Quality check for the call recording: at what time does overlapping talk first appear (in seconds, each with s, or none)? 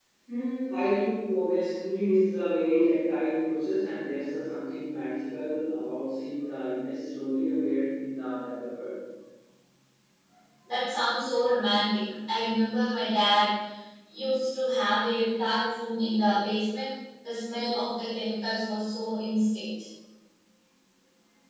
none